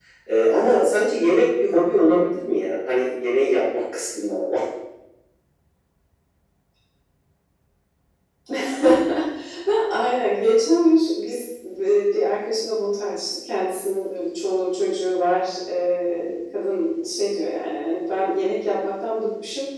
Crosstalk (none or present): none